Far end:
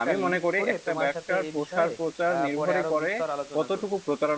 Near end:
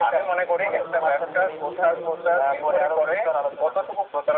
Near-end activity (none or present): present